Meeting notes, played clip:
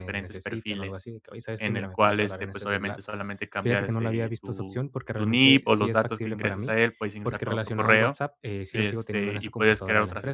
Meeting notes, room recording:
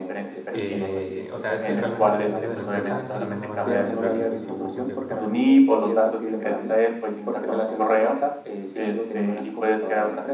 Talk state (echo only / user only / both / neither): both